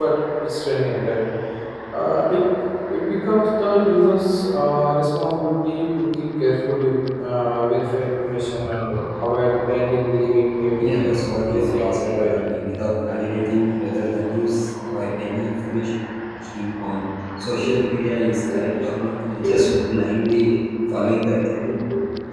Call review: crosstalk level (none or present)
present